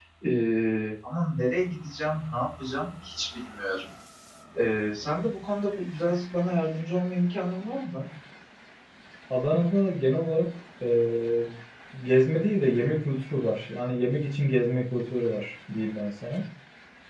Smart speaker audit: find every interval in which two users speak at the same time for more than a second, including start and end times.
none

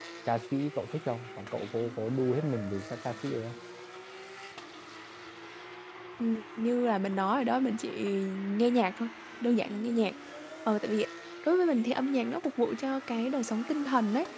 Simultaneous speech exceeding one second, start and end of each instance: none

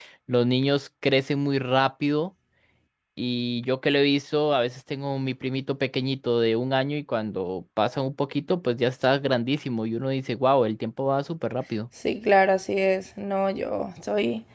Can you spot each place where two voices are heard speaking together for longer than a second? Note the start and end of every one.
none

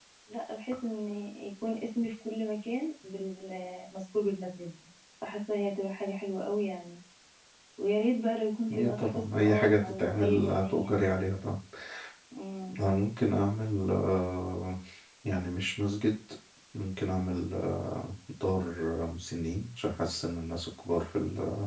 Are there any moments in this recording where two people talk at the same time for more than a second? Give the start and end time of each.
8.7-11.0

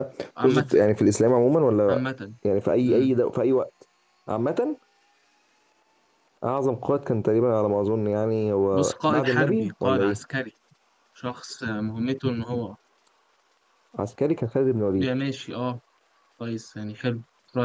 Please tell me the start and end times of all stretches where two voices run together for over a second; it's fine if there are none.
8.7-10.2

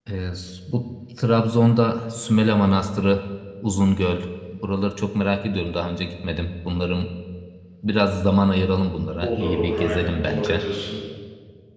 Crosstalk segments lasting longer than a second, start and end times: 9.2-10.7

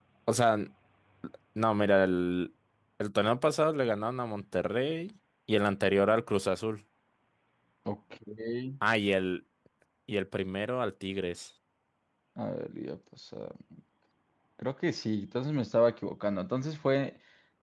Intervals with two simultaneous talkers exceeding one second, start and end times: none

